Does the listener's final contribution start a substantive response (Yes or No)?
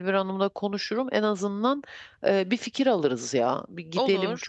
No